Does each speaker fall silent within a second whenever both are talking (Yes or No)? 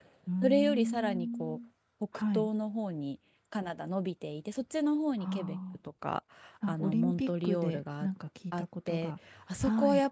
No